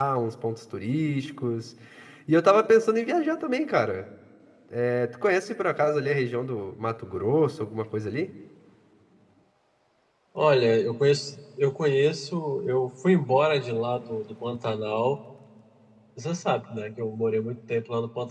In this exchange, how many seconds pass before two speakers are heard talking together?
none

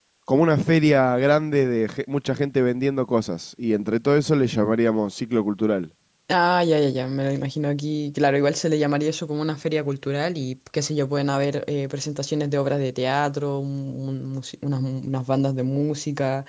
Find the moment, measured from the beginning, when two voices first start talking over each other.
none

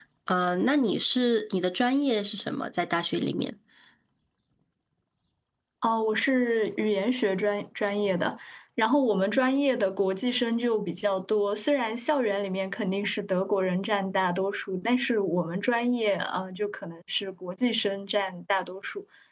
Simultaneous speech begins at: none

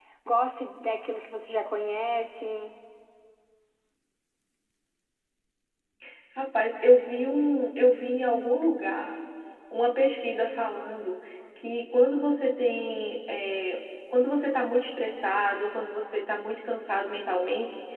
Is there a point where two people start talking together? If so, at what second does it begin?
none

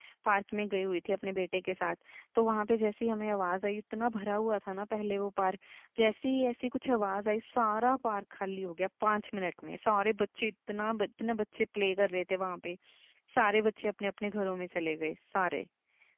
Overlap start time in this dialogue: none

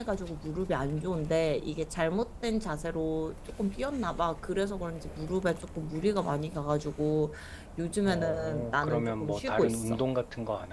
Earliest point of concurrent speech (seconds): 8.0 s

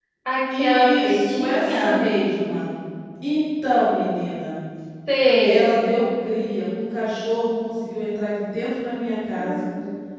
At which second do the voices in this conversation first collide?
0.6 s

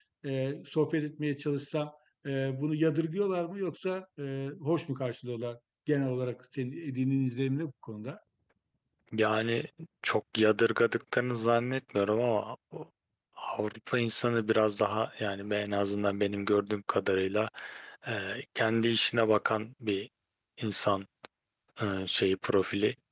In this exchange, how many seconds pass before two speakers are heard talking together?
none

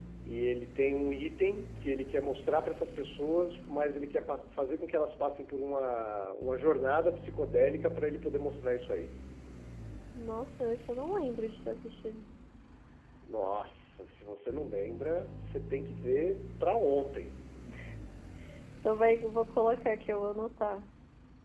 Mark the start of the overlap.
none

